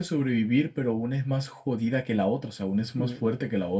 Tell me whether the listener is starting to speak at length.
Yes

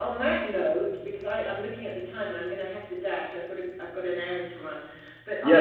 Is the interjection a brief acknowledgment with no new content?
Yes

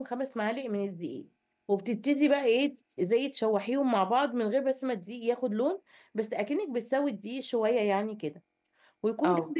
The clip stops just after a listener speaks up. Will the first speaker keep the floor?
Yes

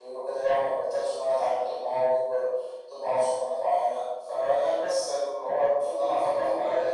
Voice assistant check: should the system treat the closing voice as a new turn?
Yes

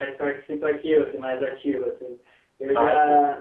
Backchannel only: Yes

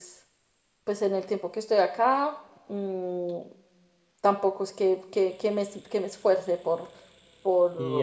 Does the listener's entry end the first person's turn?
Yes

